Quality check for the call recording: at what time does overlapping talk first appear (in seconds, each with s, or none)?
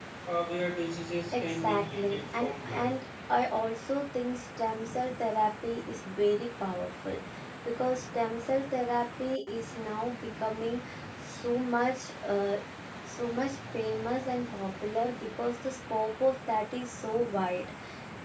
1.3 s